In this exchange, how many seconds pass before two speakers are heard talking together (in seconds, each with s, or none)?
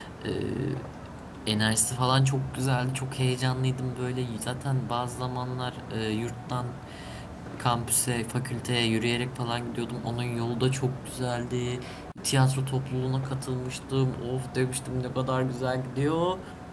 none